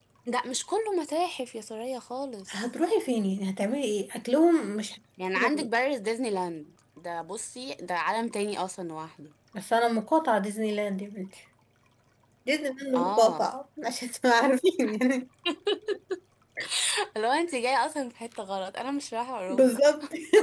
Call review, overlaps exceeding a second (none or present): none